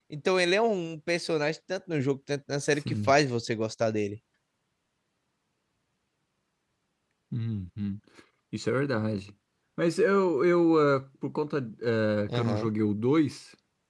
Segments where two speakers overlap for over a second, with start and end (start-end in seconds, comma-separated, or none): none